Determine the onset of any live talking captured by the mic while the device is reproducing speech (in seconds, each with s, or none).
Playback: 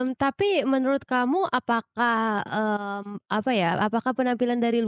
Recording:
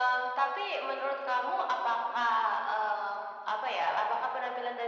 none